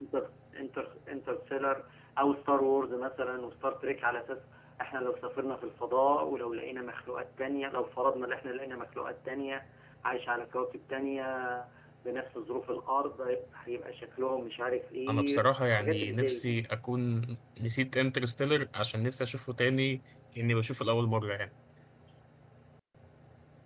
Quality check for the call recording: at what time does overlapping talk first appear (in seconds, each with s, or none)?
15.1 s